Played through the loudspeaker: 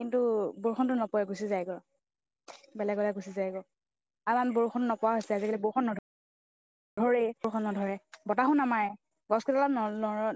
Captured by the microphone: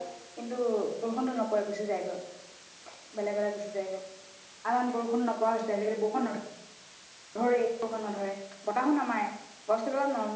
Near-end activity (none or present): none